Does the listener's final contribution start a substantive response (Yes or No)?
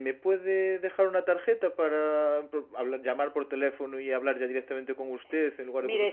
Yes